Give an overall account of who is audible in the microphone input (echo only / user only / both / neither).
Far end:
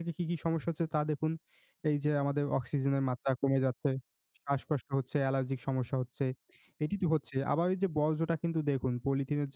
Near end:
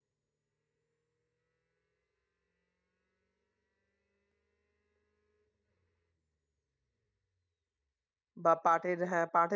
user only